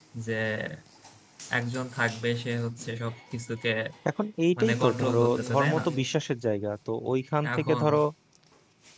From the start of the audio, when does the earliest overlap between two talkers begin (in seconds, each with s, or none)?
4.6 s